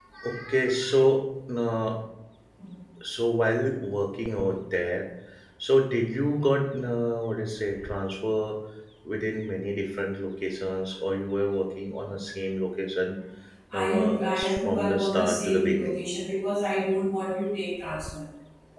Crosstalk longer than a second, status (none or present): present